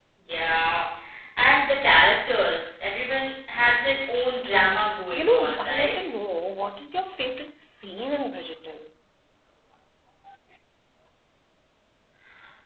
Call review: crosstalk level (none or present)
present